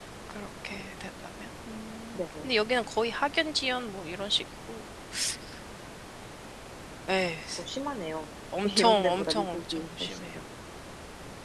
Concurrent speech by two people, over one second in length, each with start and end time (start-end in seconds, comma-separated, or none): 8.6-10.3